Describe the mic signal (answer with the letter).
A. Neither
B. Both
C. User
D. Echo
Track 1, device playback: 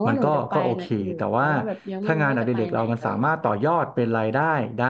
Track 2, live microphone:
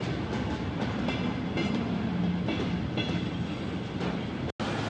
A